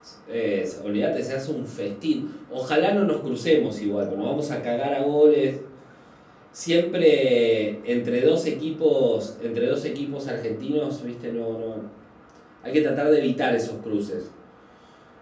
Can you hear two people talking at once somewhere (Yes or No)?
No